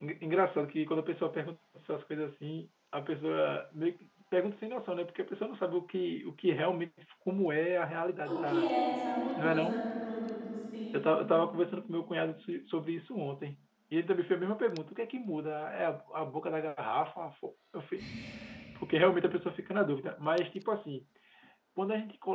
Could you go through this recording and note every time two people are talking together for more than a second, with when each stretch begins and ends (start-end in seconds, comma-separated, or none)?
none